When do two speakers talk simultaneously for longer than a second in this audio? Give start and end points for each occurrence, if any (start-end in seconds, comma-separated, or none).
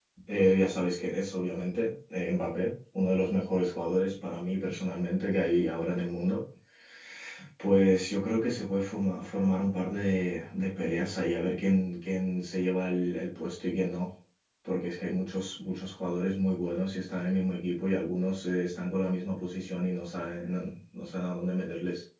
none